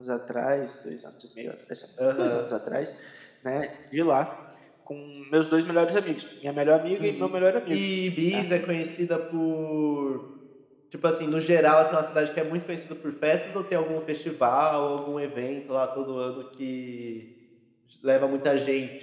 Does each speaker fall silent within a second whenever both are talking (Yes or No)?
Yes